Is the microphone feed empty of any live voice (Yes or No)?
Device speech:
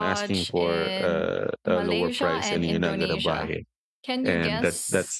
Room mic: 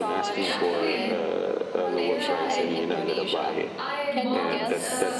No